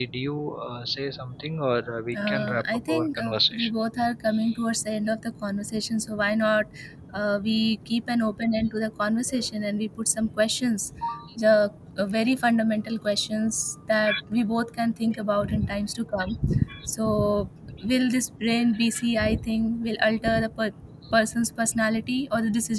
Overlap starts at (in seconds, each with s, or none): 2.1 s